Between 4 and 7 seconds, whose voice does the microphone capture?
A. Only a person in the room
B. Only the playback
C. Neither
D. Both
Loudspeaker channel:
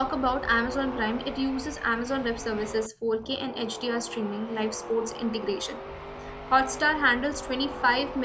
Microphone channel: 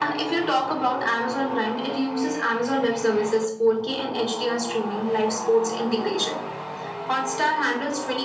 B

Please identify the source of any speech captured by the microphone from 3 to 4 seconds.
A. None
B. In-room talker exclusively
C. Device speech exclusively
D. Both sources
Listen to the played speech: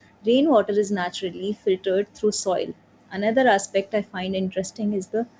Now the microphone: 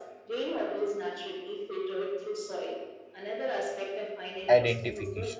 C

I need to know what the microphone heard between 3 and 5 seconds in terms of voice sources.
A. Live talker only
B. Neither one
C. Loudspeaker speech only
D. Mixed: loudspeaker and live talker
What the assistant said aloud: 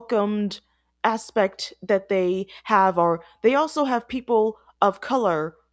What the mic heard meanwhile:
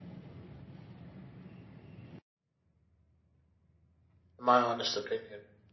A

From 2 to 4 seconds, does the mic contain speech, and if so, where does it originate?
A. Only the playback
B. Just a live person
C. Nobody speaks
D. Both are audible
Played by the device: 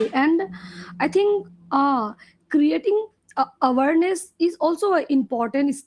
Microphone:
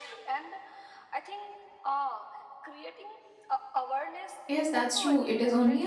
A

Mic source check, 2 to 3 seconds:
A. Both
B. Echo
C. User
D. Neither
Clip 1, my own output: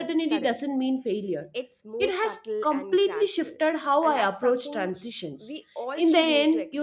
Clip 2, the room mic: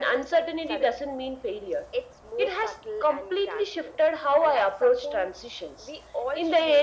B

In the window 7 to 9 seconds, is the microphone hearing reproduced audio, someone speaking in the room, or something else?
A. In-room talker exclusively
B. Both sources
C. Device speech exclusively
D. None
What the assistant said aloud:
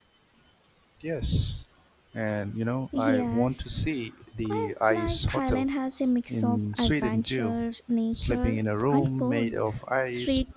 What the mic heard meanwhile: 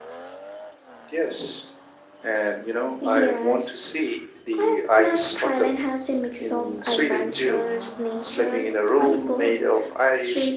C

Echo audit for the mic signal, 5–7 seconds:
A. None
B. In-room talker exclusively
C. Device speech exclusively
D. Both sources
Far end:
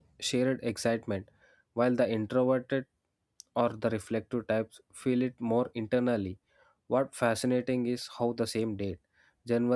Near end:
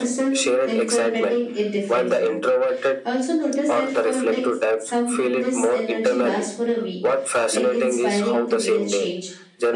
D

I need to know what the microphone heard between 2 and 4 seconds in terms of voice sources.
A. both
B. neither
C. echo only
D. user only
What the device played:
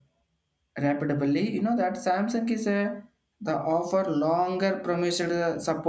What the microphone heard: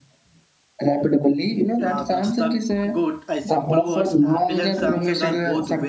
A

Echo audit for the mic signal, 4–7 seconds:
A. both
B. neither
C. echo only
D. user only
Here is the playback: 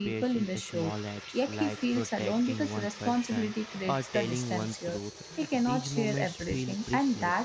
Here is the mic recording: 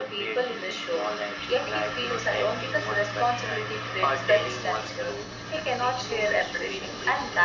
C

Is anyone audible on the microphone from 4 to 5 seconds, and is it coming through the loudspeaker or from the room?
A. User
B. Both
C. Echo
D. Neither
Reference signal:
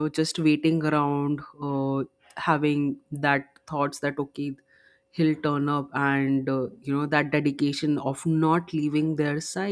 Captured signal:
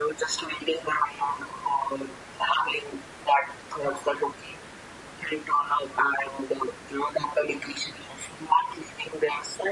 C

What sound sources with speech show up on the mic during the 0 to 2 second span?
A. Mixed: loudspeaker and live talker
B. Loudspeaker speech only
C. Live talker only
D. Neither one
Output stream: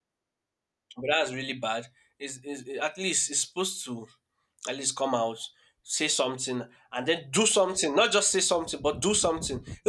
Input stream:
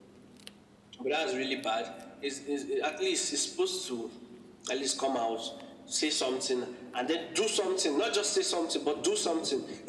B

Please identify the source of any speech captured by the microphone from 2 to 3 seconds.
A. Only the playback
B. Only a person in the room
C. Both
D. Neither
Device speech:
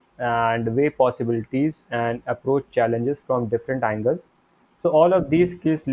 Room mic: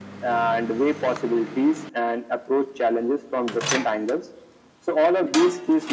A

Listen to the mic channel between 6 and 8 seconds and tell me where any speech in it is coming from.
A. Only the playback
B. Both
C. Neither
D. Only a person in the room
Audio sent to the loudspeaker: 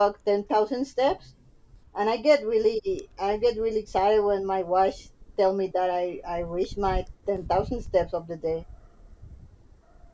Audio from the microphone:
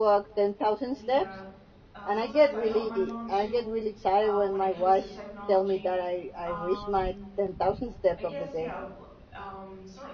B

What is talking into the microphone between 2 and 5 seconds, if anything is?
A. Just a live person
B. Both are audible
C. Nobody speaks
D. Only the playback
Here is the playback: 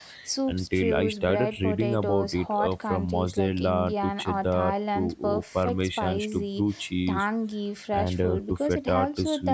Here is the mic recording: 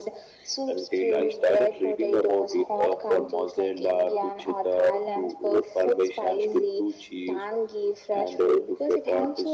D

